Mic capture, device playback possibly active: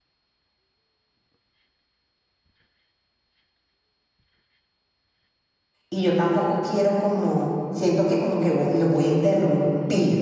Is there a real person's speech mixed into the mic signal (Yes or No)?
Yes